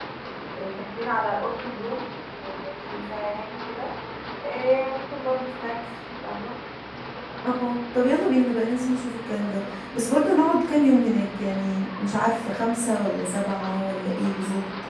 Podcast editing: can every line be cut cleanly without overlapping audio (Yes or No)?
Yes